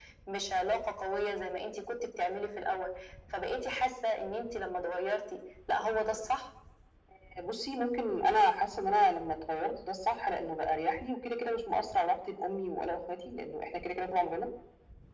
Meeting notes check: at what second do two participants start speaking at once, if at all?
none

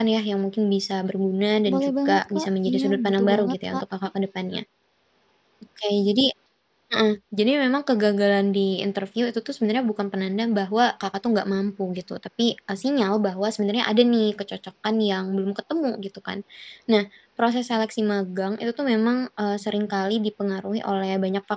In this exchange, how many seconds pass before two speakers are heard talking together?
1.7 s

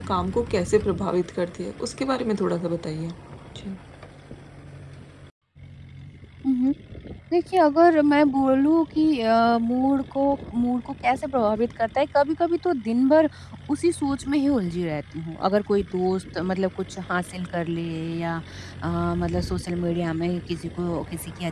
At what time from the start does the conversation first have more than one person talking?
none

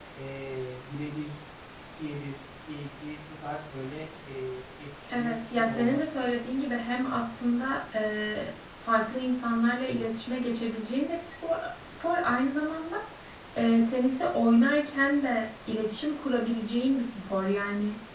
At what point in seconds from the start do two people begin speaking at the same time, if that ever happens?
5.1 s

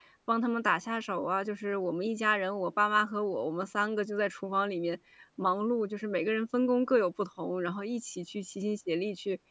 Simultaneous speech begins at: none

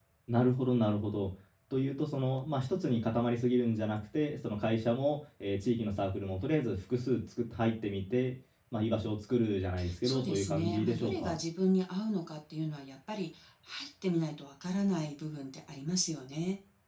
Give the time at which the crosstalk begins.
10.0 s

